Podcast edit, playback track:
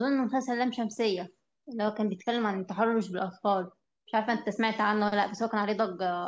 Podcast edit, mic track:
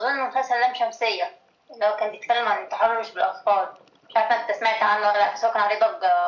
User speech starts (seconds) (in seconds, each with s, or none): none